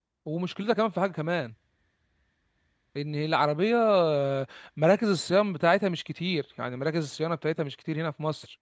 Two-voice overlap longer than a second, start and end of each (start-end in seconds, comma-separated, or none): none